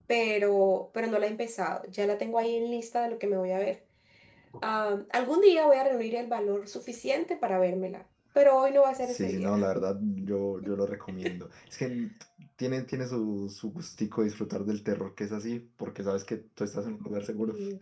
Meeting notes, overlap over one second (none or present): none